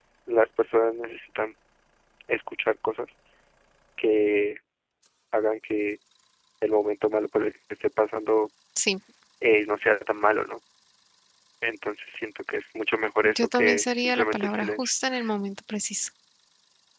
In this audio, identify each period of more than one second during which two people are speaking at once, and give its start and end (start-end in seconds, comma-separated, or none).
13.2-14.9